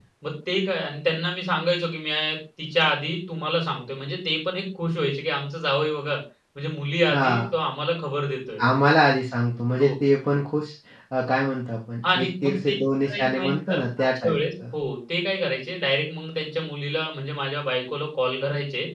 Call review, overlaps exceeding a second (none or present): present